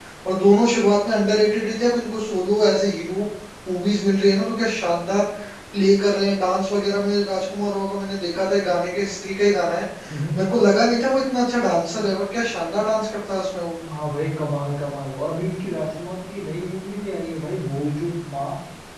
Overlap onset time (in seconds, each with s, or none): none